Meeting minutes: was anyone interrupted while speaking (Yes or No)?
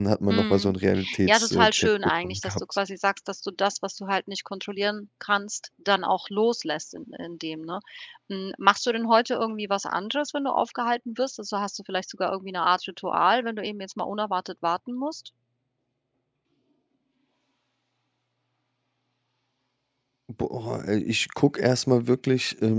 Yes